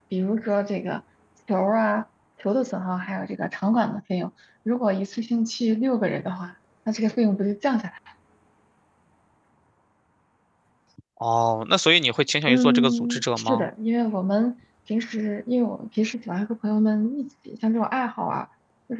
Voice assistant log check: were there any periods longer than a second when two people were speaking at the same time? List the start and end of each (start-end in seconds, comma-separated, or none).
12.5-13.7